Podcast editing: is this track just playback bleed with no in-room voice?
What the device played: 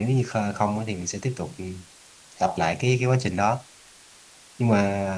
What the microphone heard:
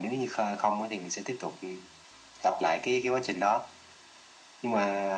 Yes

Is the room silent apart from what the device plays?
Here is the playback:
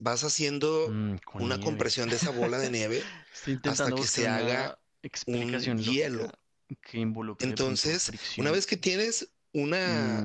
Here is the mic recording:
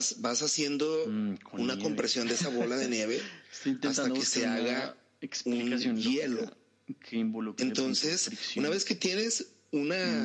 Yes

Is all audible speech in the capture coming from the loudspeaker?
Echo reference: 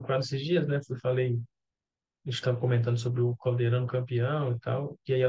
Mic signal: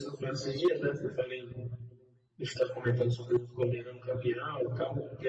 Yes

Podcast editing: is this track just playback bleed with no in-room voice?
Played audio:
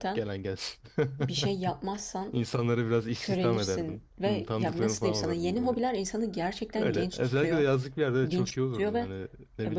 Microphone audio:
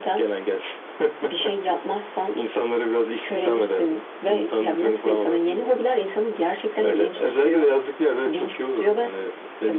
Yes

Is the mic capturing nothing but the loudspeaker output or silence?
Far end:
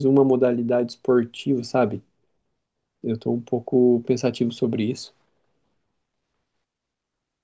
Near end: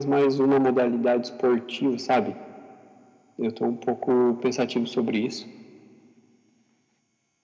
Yes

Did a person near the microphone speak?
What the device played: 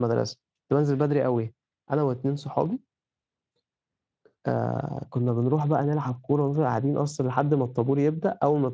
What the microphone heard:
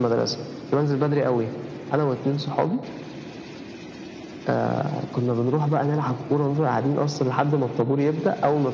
No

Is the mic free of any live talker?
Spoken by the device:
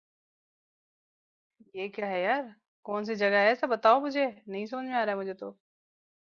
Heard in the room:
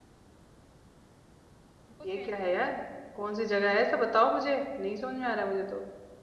No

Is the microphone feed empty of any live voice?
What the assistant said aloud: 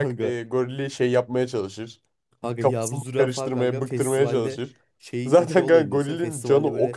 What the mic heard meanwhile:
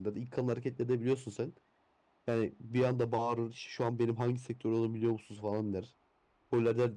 No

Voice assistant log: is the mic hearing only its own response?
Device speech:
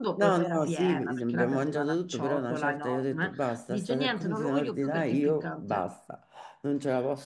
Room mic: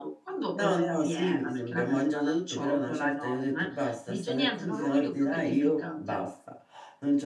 Yes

